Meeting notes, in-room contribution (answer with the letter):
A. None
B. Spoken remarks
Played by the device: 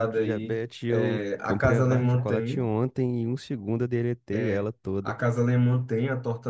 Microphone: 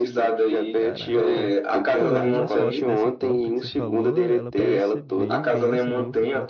B